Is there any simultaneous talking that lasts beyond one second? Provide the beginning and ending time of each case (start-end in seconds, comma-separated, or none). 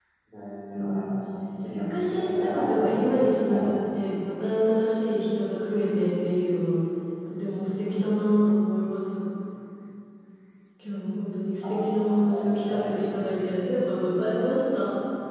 1.8-3.0